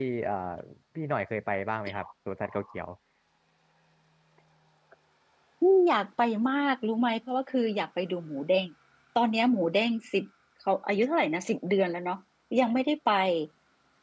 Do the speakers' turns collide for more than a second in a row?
No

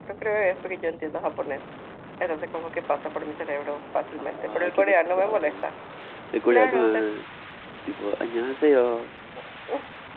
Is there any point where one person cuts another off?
Yes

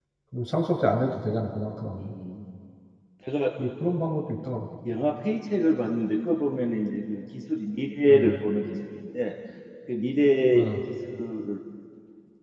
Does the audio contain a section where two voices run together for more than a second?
No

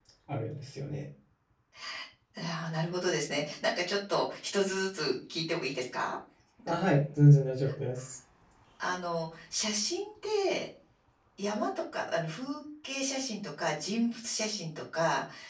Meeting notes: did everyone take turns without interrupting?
Yes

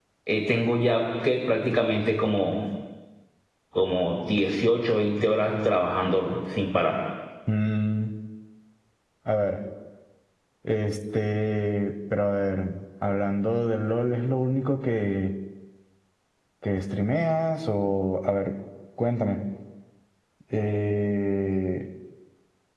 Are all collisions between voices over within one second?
Yes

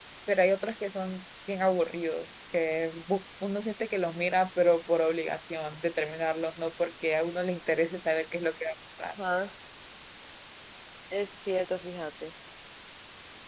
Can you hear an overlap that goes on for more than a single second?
No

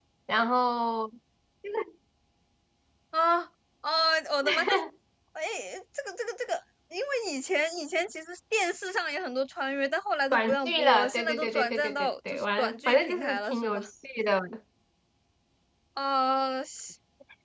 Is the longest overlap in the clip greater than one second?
Yes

